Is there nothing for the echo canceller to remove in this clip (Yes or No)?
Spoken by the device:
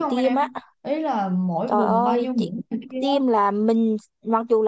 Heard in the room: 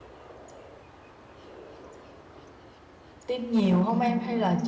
Yes